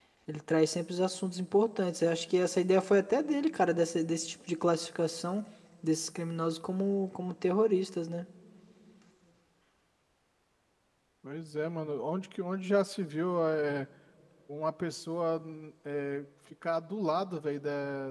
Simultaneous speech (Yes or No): No